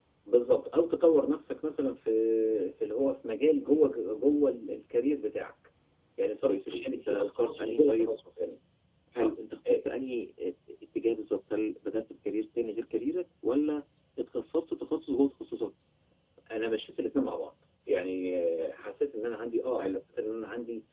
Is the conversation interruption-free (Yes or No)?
No